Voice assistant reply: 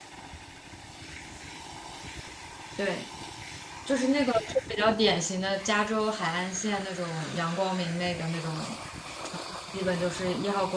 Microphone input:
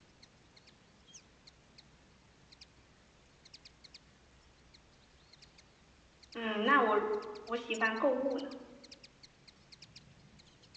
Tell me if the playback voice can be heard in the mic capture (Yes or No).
No